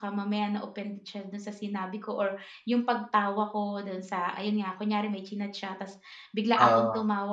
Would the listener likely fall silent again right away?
Yes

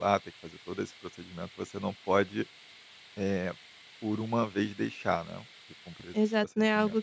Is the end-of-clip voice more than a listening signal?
Yes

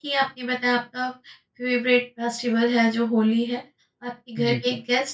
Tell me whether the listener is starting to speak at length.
No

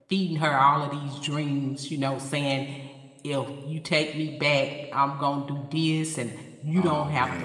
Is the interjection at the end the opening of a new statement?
No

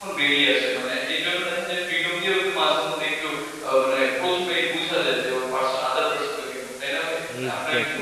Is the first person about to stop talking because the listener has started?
Yes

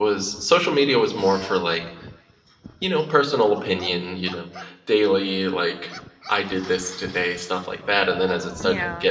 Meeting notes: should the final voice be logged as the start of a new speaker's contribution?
No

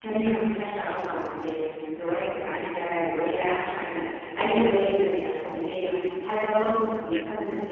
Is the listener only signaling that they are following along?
Yes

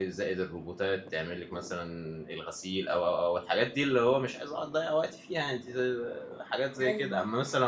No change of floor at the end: Yes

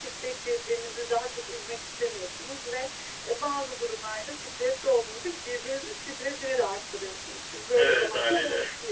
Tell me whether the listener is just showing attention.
Yes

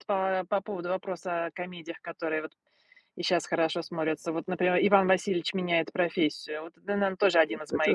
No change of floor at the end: No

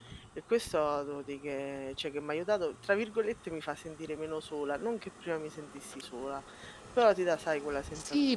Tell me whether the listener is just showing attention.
No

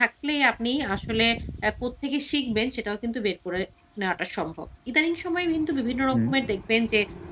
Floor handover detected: No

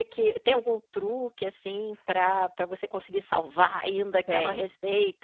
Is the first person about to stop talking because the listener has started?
No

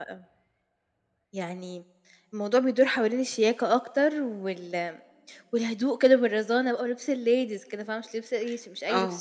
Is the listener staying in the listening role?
No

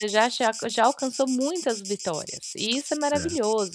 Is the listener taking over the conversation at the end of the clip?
No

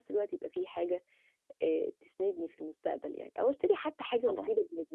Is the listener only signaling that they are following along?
Yes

